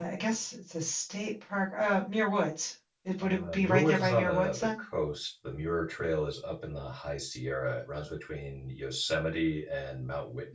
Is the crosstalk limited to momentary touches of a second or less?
No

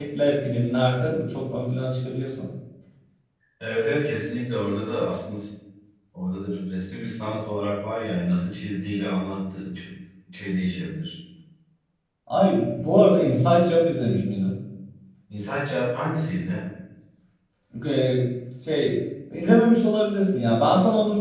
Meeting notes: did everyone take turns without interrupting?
Yes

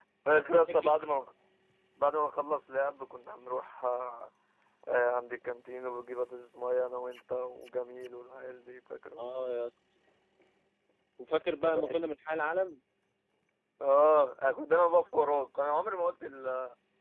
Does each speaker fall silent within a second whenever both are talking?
Yes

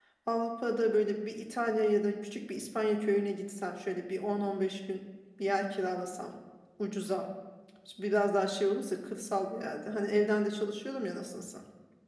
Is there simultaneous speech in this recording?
No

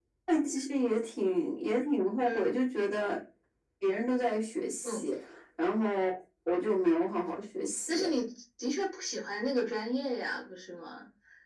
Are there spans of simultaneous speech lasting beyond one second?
No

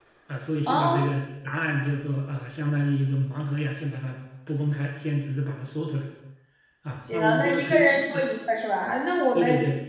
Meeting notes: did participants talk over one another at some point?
Yes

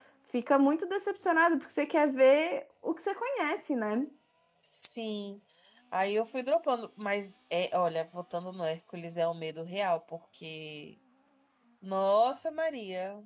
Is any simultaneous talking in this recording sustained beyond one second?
No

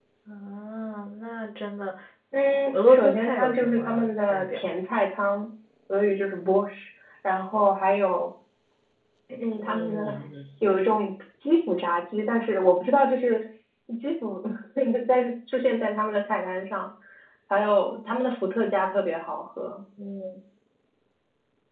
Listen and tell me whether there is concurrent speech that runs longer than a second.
Yes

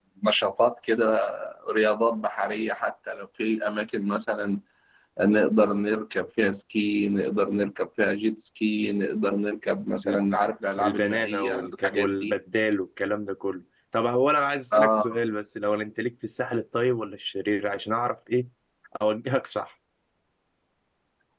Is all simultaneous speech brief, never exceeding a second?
No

